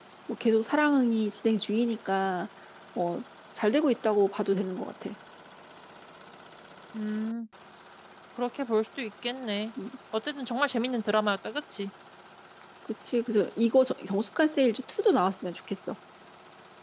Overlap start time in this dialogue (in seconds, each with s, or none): none